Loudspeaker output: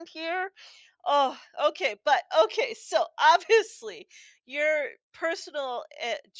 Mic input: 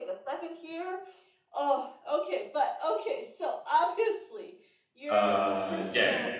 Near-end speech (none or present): present